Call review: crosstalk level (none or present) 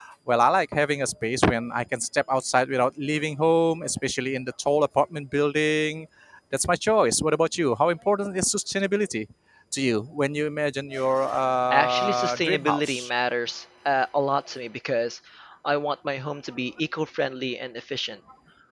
present